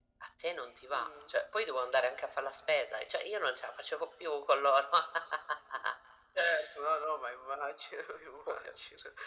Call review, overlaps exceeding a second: none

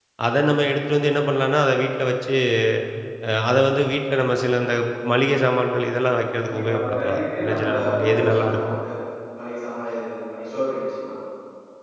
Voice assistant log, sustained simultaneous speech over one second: present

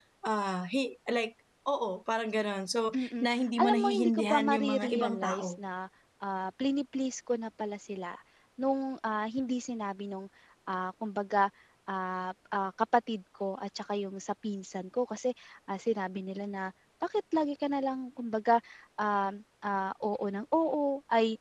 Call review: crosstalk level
present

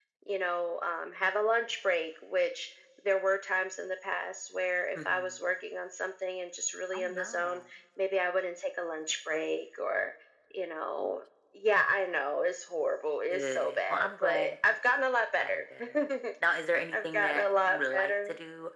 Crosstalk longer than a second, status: present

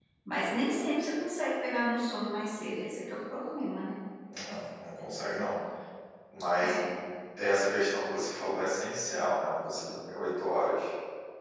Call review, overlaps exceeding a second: none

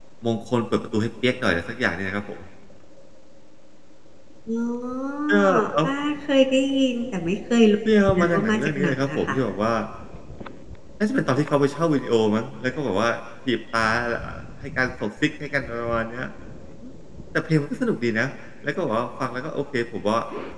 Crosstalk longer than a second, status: present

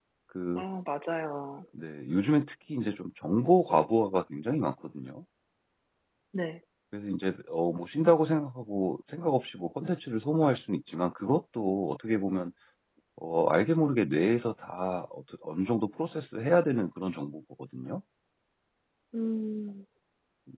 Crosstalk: none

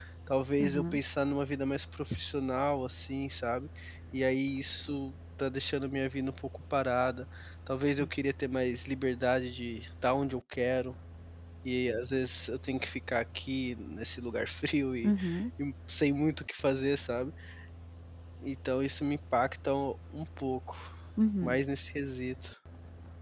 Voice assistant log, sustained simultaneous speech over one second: none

